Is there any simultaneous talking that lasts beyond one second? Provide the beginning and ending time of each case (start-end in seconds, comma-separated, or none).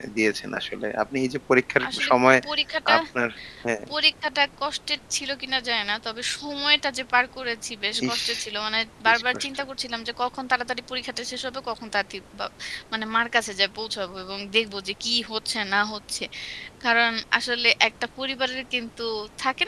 none